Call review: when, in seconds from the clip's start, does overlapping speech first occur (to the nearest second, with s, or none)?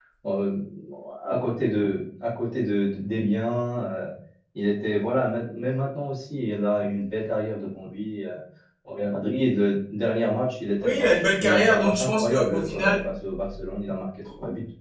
11 s